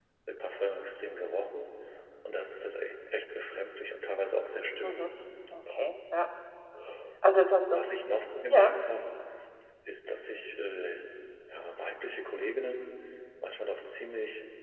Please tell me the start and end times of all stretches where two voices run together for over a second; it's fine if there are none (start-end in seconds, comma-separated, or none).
none